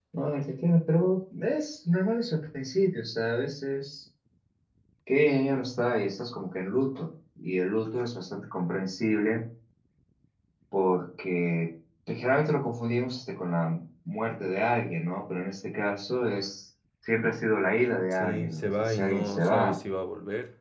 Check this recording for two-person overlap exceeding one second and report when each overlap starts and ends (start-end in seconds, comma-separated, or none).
18.1-19.8